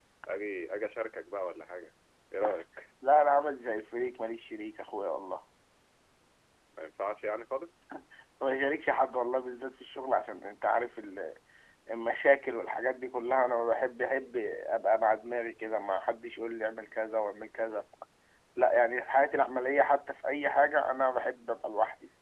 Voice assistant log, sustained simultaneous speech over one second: none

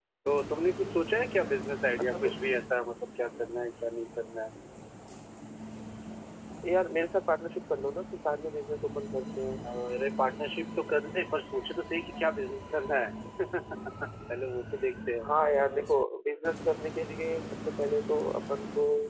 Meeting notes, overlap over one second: none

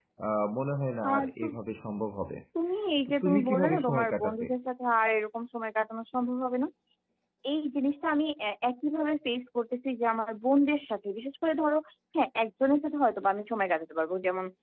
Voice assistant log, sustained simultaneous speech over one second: present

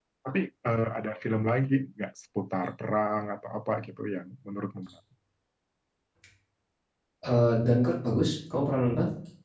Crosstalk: none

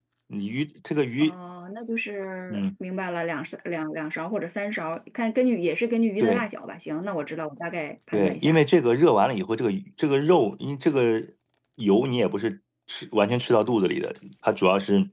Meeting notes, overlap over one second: none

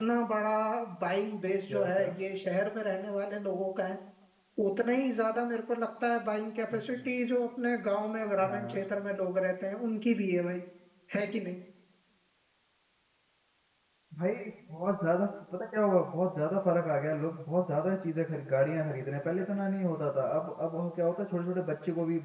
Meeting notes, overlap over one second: none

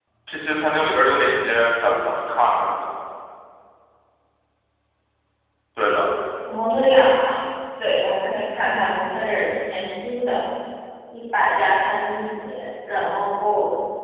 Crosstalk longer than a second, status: none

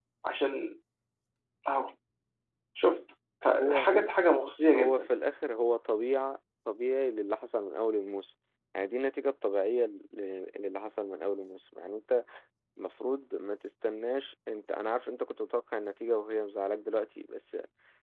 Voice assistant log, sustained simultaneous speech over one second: none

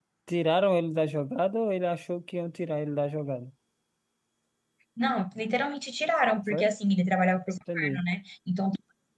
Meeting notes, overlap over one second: none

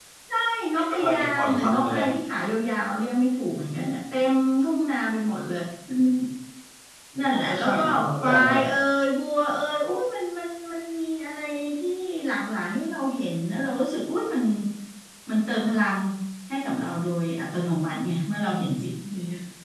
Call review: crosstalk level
present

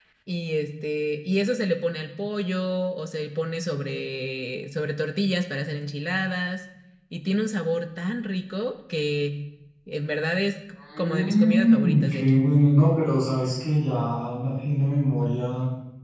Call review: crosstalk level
present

